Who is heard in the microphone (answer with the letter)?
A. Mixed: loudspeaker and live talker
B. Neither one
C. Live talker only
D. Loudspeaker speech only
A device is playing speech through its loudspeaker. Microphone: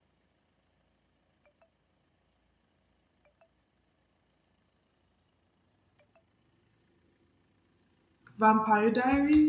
C